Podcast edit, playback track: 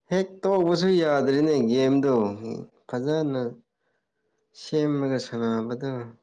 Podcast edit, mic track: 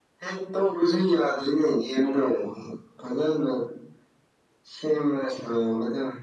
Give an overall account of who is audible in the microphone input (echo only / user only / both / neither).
echo only